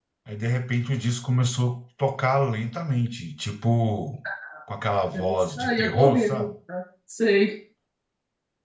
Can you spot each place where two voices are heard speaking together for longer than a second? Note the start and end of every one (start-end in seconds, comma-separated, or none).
5.1-6.5